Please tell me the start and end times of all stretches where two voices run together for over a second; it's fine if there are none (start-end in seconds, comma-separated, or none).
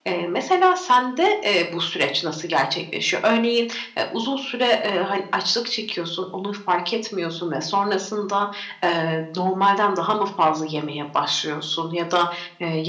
none